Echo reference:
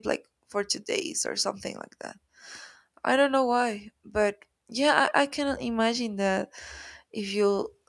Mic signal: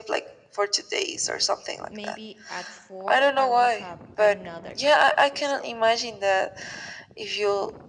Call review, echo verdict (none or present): present